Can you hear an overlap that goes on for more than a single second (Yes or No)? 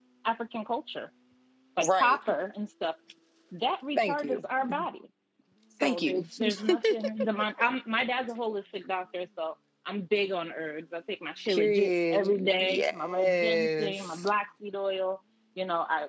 Yes